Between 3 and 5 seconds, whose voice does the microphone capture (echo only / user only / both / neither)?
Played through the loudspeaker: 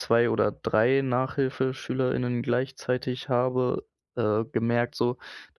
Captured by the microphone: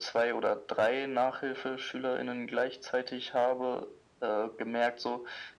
echo only